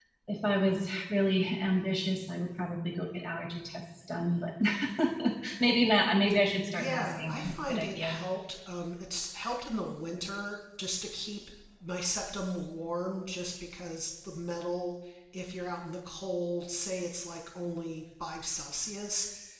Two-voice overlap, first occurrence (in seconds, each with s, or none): 6.7 s